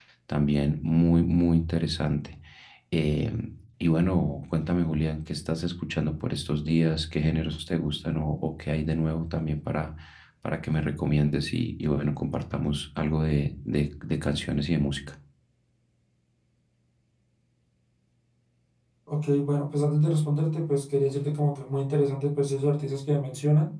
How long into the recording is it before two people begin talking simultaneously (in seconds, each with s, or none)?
none